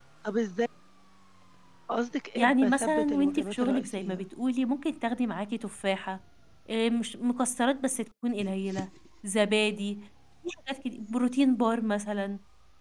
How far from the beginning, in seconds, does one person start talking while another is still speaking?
2.4 s

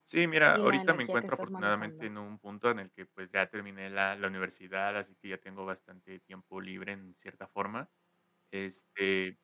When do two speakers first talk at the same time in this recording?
0.5 s

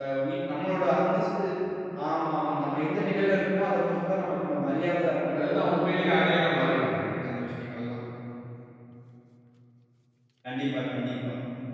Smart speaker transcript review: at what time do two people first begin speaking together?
5.3 s

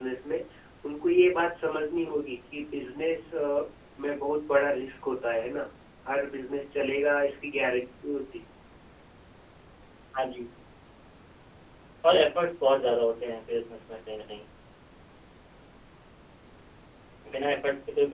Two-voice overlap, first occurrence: none

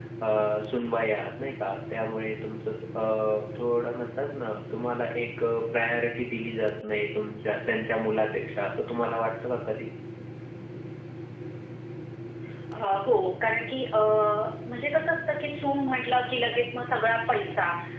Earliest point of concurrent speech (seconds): none

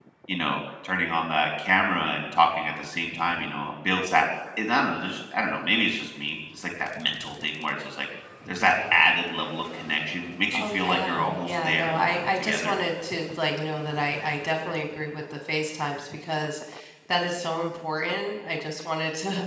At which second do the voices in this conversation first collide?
10.5 s

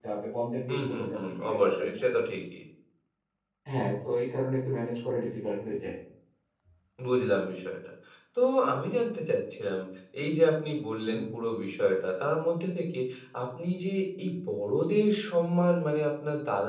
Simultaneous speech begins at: 0.7 s

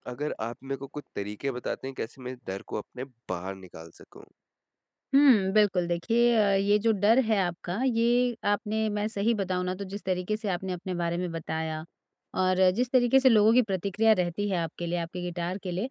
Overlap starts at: none

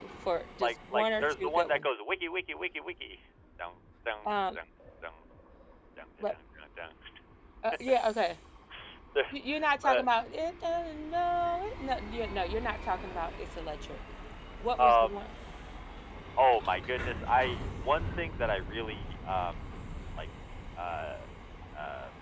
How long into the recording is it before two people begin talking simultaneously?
0.6 s

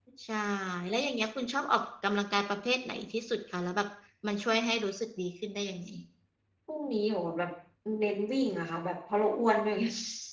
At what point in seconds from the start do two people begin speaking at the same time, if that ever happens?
none

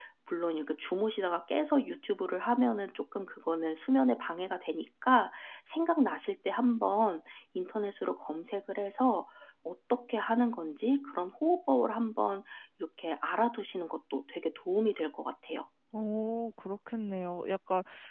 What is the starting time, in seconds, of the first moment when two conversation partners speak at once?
none

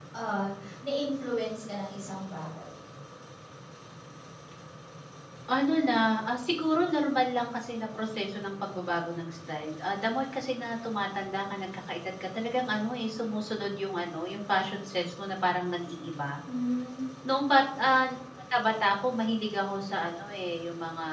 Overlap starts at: none

